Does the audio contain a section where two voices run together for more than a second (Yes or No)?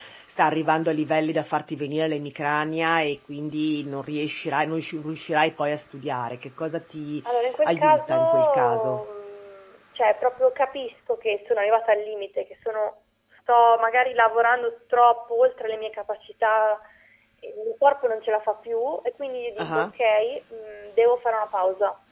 Yes